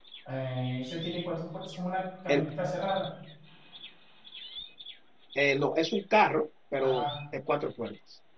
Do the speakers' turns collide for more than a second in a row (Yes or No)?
No